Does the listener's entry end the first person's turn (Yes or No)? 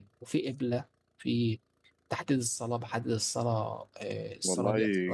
Yes